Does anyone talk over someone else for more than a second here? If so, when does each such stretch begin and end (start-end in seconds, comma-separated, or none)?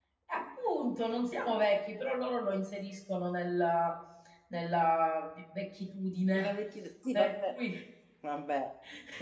none